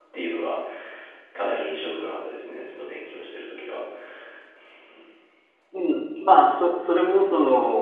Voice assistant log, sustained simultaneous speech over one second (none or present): none